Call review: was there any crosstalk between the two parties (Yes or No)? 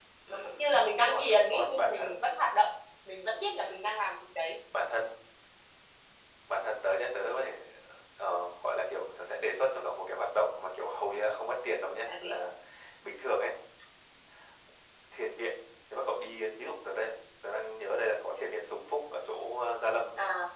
Yes